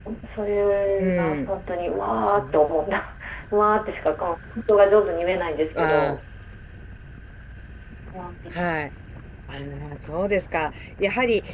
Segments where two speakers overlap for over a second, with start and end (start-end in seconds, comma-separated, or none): none